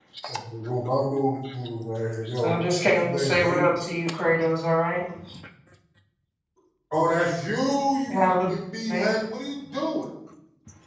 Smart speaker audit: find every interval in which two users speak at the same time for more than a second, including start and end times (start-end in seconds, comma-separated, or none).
2.4-3.6